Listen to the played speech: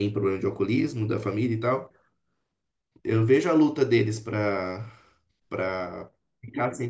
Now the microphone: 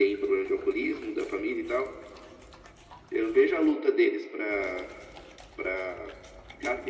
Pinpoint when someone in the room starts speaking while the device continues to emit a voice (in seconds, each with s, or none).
none